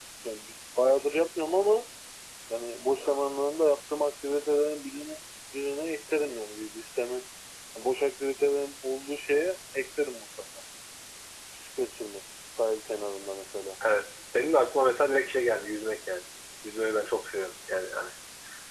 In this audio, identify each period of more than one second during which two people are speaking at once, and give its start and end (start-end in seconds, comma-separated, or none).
none